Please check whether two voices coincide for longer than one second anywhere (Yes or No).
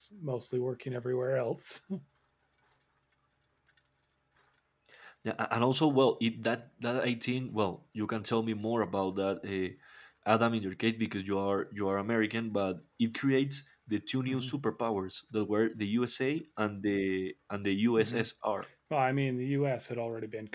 No